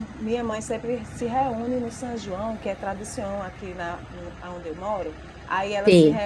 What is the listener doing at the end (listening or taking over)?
listening